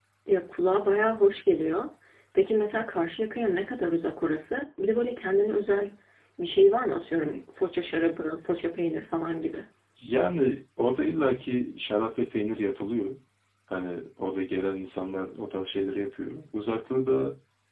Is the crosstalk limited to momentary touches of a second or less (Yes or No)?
Yes